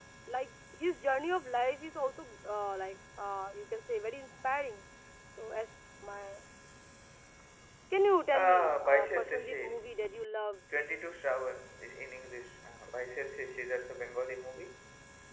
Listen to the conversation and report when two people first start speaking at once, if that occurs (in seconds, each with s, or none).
8.3 s